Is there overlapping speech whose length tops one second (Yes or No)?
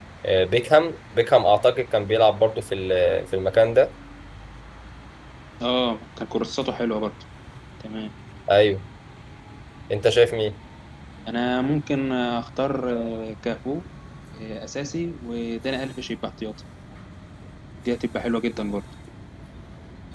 No